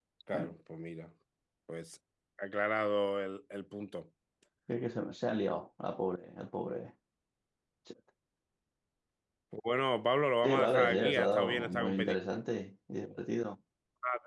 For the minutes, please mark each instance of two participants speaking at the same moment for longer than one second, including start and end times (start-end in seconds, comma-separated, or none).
10.4-12.2